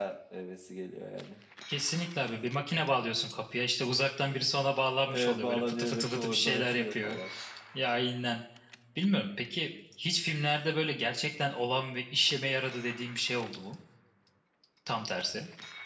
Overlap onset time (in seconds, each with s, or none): 5.1 s